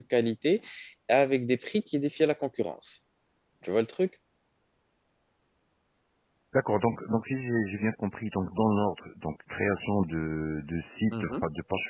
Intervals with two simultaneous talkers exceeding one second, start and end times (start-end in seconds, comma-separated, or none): none